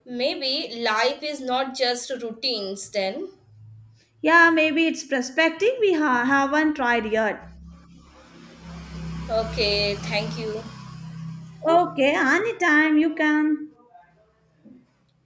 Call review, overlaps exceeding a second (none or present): none